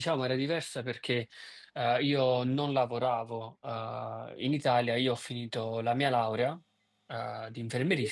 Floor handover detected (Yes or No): No